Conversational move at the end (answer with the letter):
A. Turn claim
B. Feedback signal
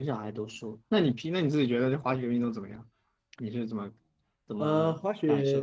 A